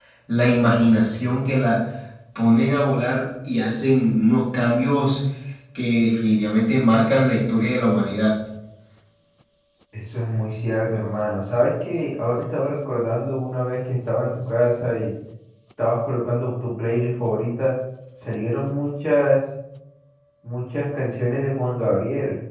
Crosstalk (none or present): none